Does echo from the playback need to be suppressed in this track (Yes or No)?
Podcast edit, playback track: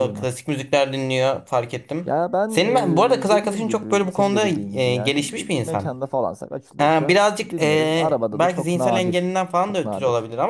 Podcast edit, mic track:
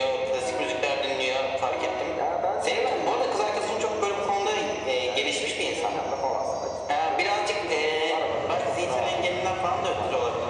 Yes